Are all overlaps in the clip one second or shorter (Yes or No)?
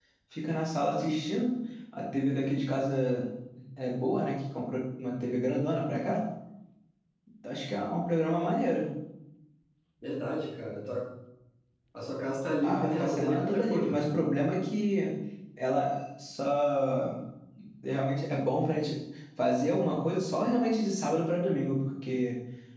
No